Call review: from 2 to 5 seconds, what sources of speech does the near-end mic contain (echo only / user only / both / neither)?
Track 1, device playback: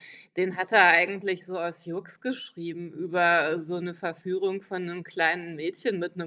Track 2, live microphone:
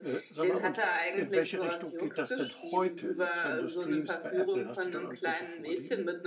both